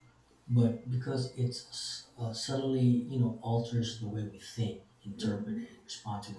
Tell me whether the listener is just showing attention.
Yes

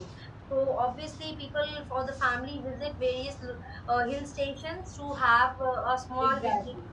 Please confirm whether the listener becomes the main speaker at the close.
Yes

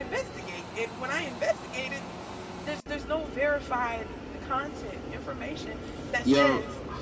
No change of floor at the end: Yes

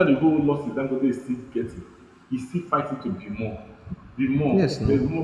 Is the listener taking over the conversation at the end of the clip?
No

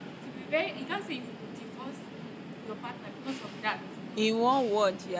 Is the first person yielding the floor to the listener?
Yes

